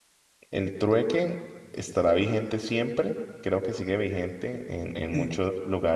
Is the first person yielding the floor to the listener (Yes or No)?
No